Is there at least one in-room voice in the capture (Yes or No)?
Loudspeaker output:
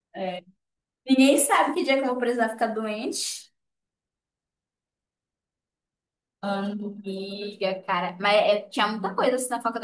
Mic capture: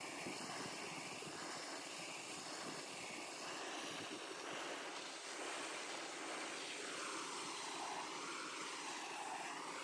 No